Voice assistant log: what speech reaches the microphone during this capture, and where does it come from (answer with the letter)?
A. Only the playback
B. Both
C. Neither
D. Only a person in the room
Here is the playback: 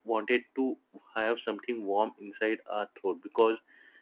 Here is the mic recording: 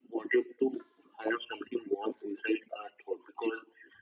A